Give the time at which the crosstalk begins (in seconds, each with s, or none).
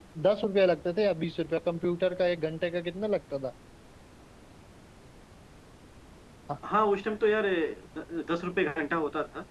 none